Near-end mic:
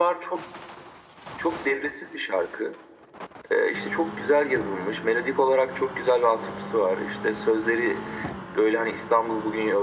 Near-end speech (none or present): none